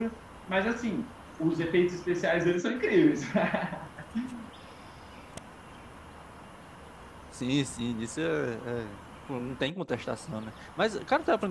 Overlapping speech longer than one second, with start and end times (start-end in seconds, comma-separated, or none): none